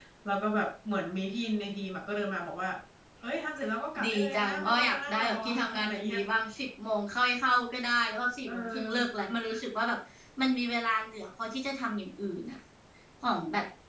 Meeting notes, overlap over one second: present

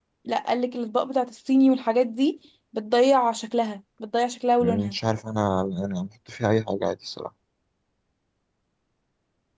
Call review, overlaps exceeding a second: none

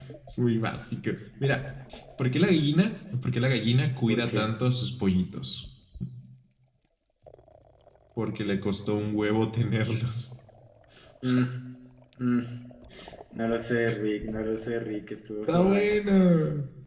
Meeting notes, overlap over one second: none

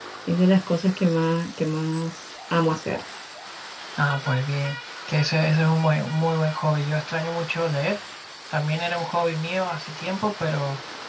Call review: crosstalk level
none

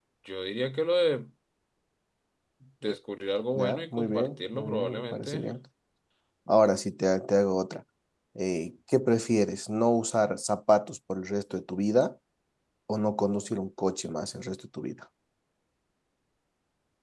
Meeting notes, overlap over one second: present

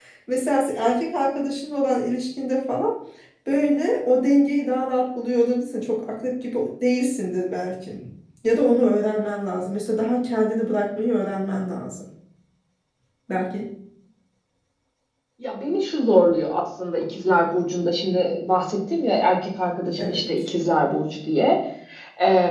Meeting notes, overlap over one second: none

